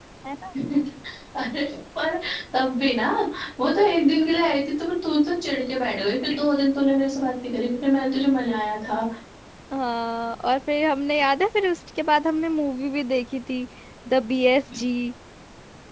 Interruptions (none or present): none